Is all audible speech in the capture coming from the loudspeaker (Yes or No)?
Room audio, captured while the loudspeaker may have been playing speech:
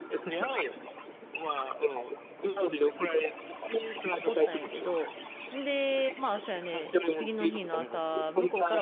No